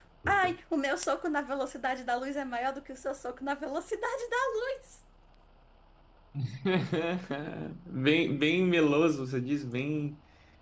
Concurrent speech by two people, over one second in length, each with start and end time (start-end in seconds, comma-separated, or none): none